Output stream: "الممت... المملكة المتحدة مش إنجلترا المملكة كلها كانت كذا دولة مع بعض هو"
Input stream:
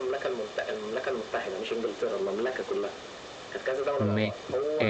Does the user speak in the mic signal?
Yes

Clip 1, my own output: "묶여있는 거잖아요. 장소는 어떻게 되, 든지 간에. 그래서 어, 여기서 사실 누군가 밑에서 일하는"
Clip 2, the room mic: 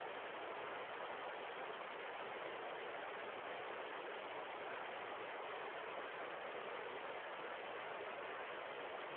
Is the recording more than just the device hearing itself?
No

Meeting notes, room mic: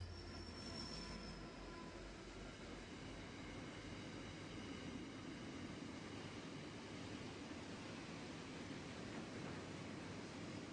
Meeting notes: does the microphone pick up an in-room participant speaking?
No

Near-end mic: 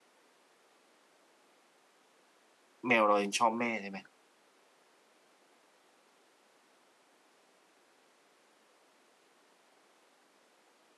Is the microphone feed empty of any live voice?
No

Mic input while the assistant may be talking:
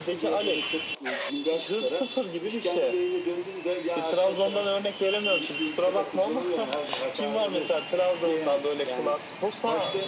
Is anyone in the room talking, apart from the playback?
No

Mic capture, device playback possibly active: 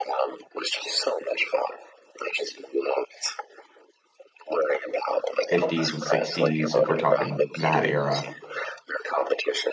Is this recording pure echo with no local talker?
No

